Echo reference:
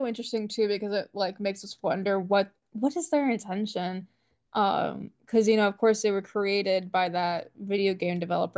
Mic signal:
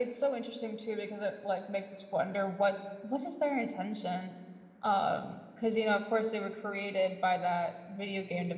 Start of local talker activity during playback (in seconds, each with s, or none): none